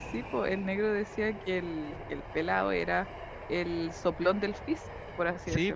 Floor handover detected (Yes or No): Yes